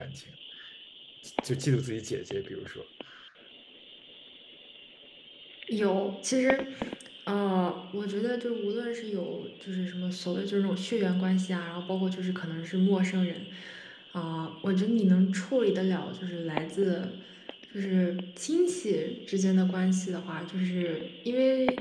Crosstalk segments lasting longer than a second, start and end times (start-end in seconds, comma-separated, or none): none